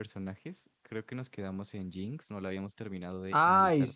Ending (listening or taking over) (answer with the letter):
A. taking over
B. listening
A